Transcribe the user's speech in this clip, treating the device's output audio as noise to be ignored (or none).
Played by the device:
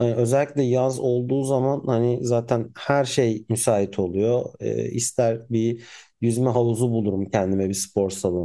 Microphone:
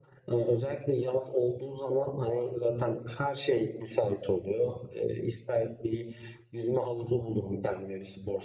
none